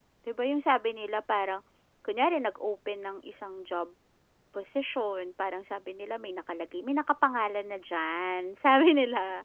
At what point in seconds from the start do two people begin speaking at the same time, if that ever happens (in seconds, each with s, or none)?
none